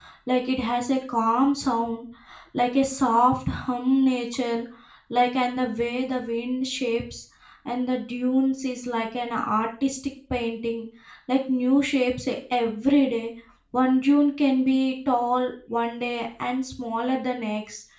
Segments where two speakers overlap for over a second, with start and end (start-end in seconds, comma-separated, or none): none